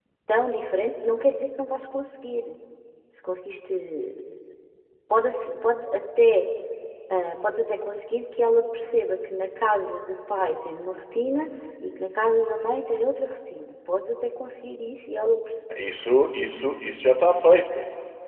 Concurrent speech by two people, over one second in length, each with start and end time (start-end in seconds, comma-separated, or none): none